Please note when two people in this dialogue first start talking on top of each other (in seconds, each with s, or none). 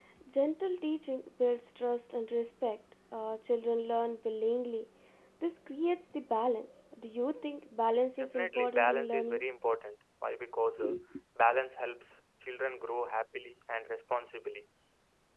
8.2 s